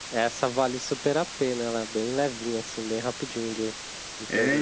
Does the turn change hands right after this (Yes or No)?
Yes